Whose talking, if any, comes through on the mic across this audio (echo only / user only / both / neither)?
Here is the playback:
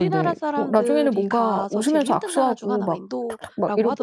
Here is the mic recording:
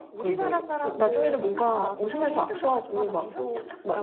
both